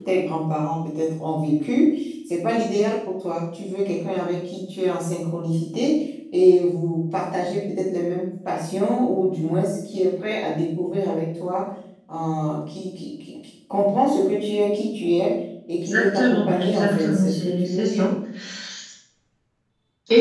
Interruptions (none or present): present